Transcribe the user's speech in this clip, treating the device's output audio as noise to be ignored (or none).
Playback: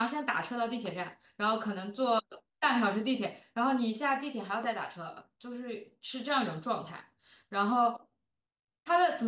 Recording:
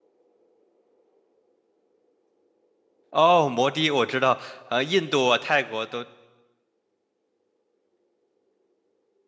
哦，摩的我知道，呃，印度啊、泰国都